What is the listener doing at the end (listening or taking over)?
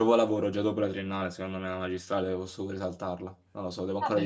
taking over